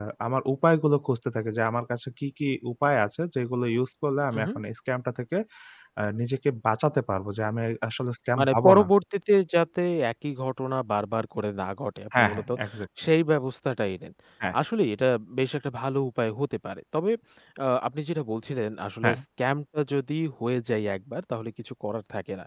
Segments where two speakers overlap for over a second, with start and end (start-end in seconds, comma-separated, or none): none